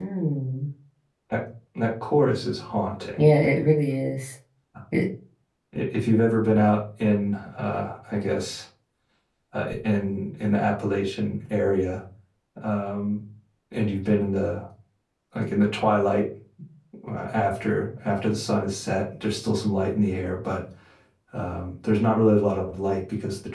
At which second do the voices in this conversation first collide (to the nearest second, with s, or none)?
none